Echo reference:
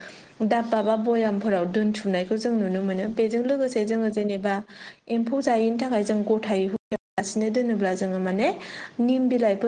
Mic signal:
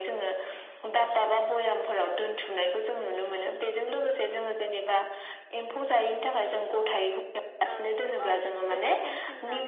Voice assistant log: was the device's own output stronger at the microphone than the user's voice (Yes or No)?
Yes